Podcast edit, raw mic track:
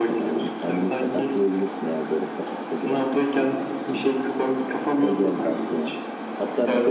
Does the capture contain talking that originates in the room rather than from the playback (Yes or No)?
Yes